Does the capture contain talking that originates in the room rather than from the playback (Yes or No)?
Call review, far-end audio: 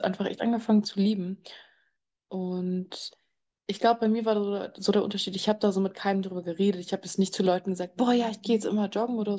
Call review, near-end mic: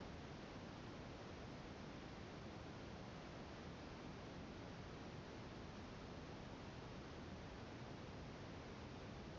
No